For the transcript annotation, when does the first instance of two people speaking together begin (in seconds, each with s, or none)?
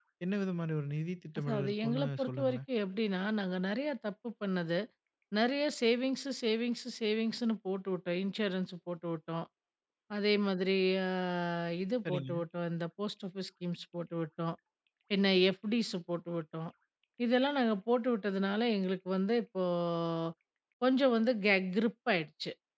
1.4 s